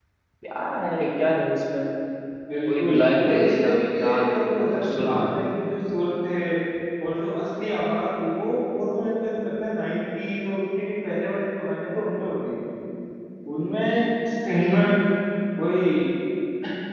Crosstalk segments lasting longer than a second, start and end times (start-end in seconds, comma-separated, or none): 2.7-5.3